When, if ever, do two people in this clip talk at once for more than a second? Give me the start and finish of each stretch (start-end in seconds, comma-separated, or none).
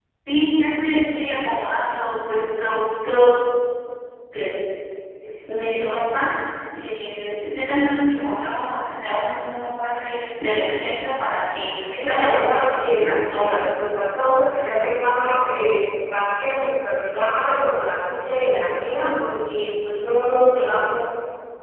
11.9-13.6